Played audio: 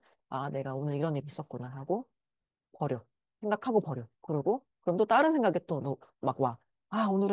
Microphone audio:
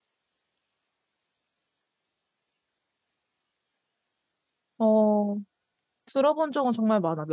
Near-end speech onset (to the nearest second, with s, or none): 5 s